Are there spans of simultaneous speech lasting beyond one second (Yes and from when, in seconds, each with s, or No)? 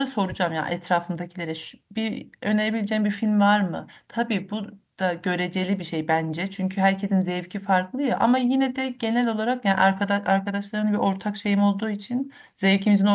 No